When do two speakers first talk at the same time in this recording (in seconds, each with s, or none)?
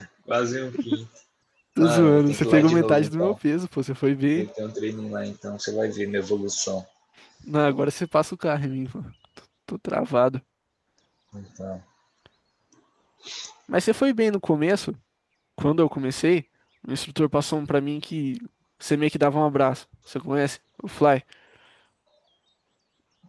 1.8 s